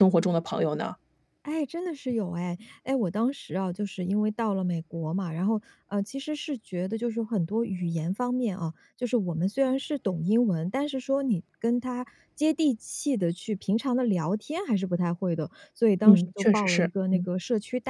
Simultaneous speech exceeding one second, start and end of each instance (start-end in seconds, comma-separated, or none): 16.0-17.2